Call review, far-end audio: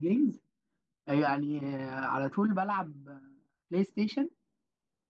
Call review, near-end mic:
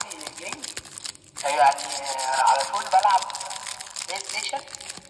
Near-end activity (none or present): none